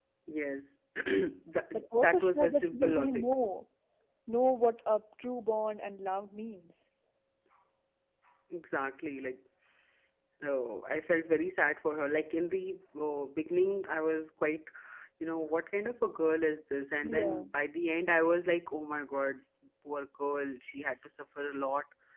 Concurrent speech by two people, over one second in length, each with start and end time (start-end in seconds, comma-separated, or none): 1.7-3.2